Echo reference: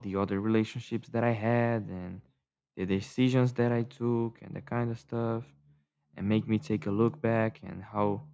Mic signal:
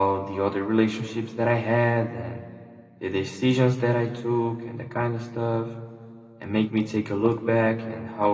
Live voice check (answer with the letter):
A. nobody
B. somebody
A